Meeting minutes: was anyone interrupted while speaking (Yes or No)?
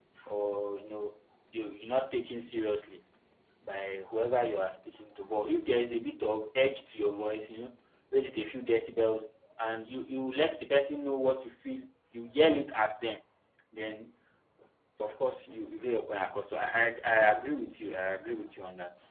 No